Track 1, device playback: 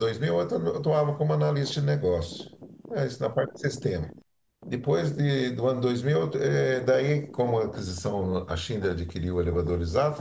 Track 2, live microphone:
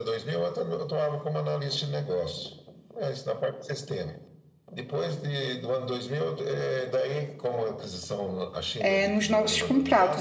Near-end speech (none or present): present